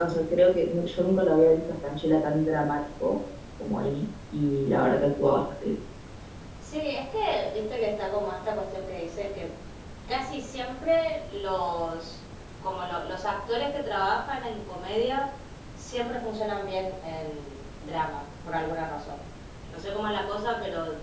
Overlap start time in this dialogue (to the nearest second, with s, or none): none